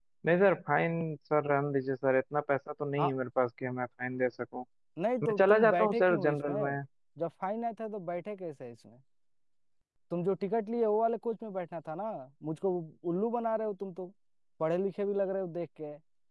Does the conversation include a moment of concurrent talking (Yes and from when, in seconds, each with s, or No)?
Yes, from 5.2 s